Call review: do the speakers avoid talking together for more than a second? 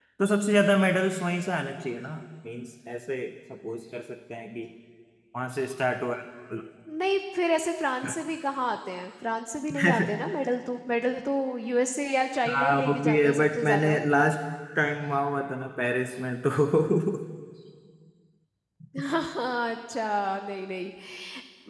No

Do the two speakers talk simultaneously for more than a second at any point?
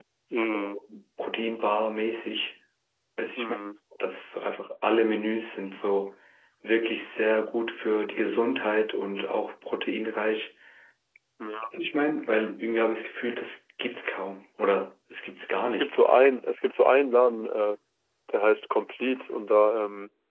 No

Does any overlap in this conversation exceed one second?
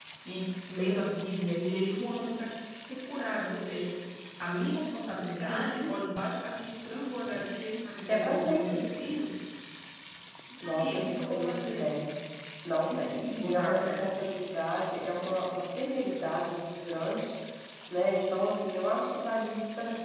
Yes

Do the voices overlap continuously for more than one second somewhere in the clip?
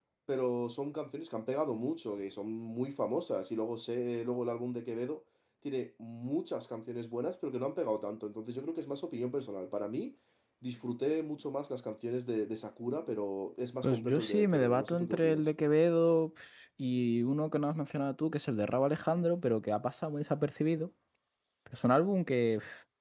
Yes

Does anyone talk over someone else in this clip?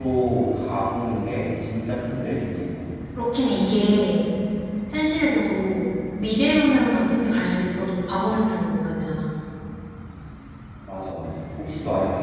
No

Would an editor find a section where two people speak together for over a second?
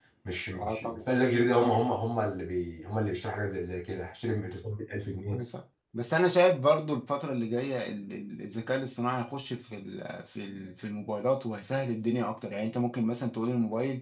No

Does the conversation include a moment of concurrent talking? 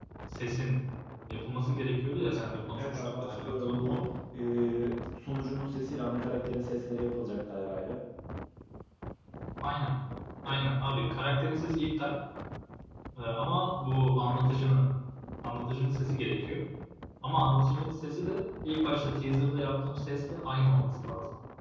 Yes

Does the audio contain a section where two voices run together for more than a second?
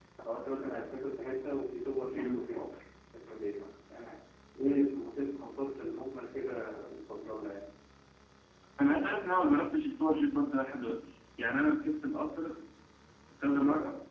No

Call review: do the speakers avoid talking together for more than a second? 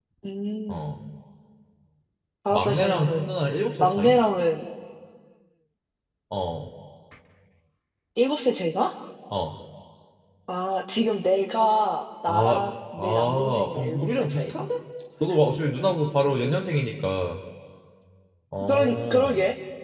No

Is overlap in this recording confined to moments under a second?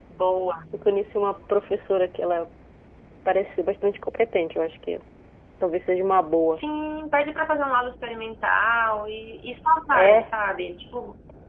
Yes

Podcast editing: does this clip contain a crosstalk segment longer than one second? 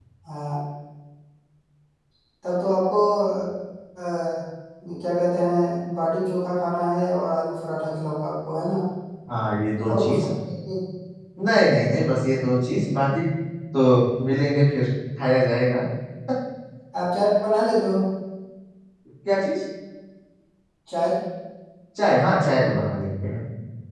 No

